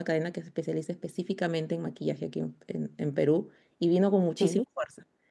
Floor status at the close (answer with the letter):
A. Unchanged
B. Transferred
A